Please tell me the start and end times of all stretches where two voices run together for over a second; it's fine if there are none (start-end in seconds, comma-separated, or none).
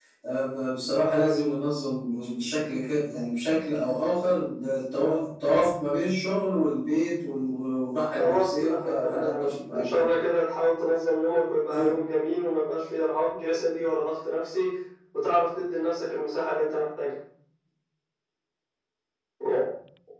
8.2-10.0